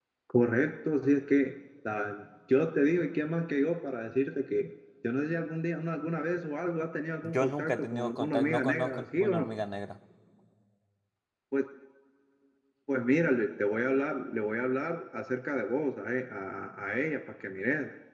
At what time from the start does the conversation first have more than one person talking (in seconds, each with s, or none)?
7.2 s